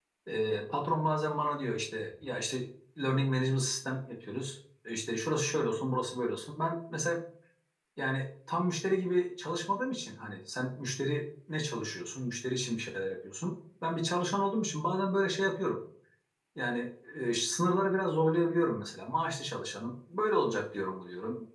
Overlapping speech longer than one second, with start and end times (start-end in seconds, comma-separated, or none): none